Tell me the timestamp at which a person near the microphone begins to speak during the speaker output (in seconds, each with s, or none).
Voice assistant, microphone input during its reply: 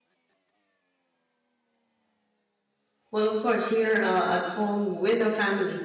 3.1 s